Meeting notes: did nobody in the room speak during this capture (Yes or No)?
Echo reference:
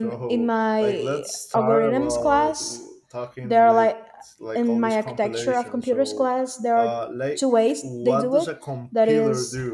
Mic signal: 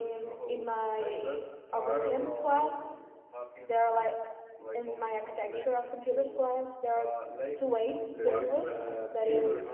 No